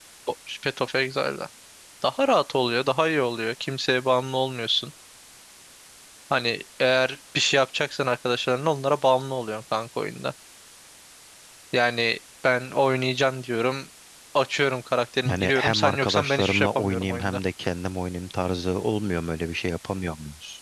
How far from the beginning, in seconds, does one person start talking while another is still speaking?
15.2 s

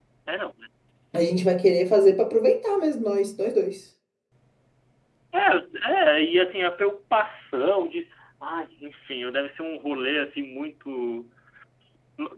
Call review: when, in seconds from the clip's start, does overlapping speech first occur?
none

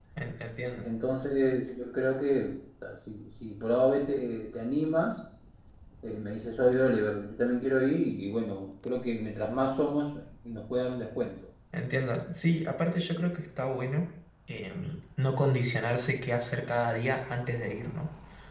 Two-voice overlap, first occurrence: none

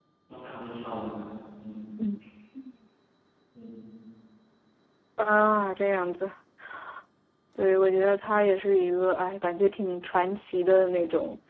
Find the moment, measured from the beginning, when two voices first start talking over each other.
none

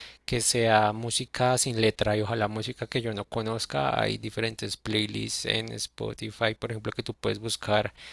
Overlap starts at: none

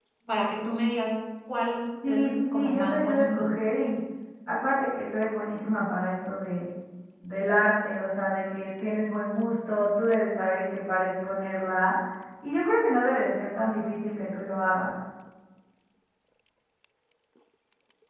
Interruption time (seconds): 2.0 s

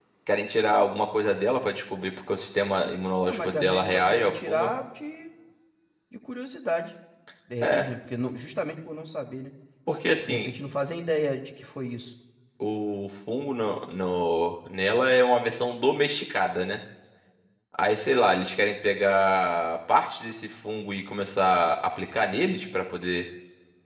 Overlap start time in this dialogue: 3.3 s

